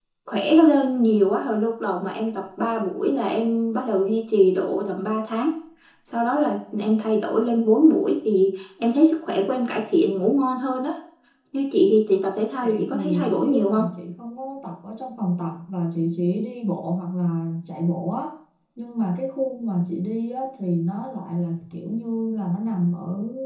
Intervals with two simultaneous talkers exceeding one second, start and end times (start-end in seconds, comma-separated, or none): 12.6-13.8